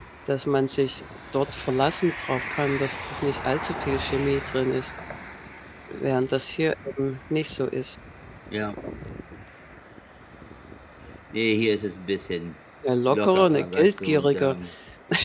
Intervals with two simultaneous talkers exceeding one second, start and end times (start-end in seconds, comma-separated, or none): 13.1-14.6